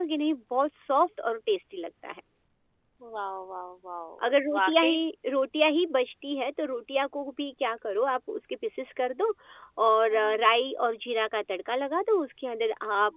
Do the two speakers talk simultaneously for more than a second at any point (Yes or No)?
No